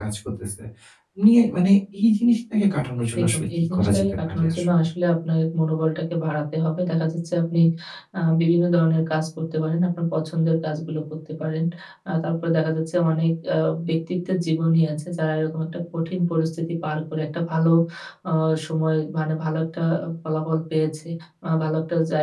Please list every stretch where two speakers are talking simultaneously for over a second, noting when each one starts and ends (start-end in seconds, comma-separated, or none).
3.2-4.6